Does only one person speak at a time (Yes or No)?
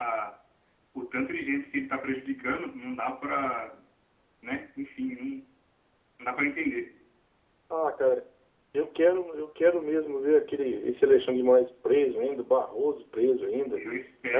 Yes